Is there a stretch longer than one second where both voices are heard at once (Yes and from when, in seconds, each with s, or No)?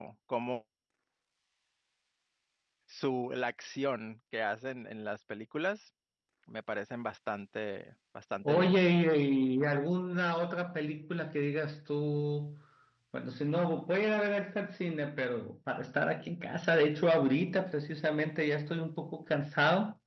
No